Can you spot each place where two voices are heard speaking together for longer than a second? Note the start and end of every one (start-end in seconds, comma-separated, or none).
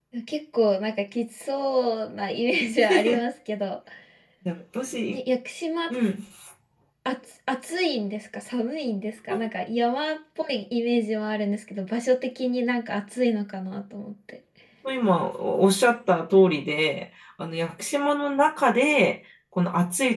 none